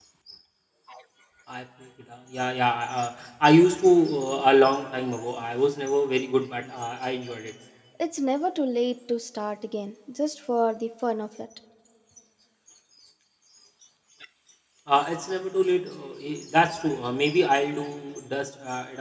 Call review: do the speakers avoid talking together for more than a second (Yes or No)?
Yes